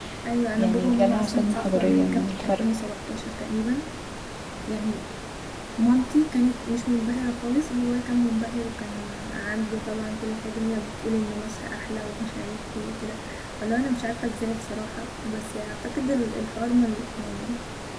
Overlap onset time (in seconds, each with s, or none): 0.6 s